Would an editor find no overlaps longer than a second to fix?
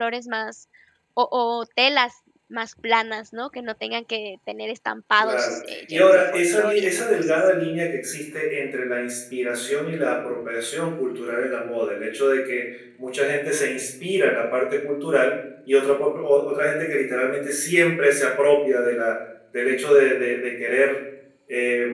No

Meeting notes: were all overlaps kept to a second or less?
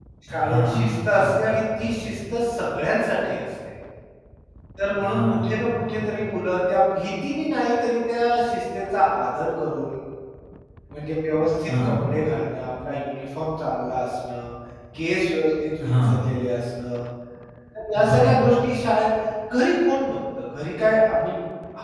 No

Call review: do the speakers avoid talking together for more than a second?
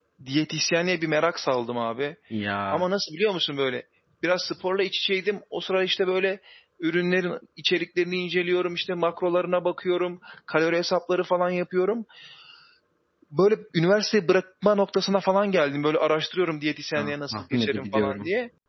No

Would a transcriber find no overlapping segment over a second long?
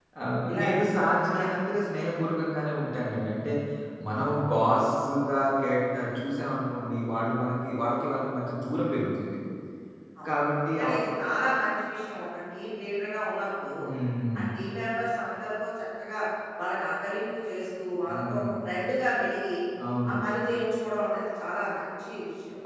Yes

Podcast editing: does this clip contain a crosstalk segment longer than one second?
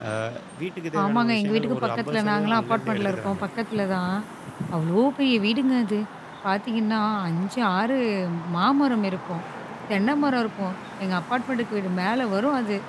Yes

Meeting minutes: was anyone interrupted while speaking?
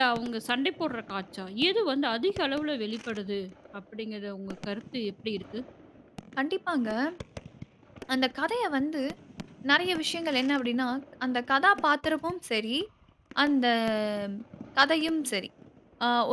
No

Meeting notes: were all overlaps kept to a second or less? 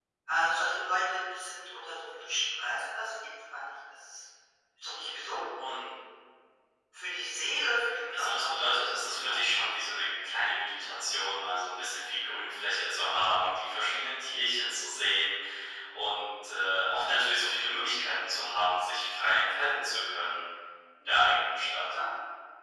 Yes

